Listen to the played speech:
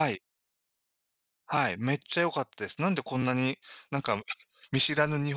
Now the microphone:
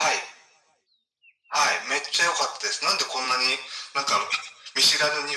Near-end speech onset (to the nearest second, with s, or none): none